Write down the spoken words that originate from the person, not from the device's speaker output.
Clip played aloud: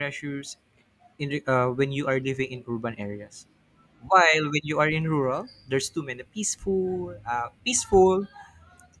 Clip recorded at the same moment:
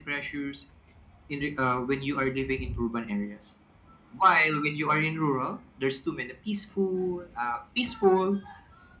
none

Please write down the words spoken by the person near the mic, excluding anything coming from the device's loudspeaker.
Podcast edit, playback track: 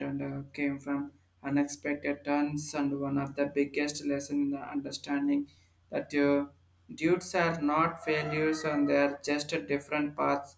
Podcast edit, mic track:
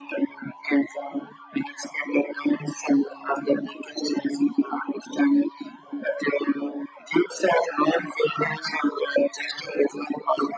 none

